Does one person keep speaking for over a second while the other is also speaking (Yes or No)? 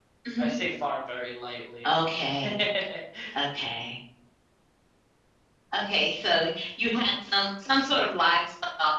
No